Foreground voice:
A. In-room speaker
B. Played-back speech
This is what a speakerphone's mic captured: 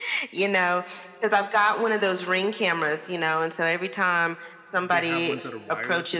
B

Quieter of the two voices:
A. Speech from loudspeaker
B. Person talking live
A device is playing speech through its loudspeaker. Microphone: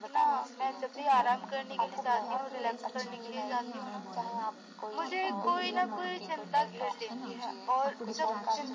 B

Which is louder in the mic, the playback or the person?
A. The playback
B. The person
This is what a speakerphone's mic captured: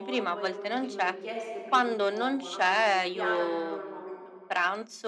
A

